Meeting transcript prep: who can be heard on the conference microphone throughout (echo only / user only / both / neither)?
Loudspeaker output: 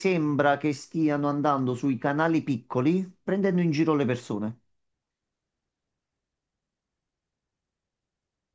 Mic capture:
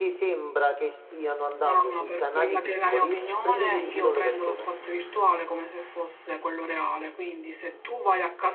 both